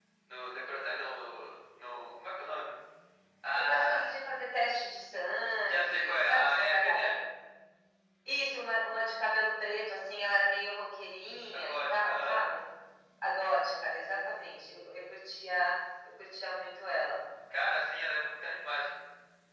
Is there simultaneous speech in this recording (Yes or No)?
Yes